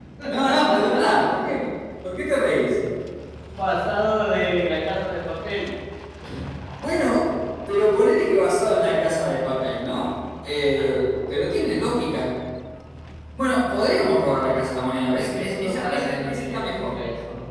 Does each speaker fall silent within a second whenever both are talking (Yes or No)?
No